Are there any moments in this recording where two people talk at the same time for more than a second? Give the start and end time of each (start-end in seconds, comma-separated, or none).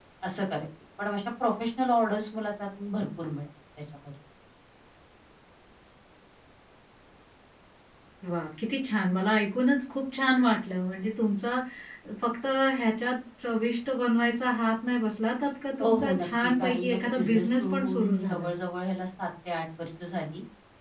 15.8-18.5